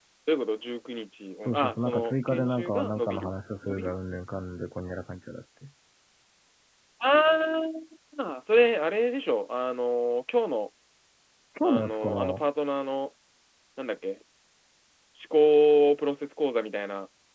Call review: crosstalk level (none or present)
present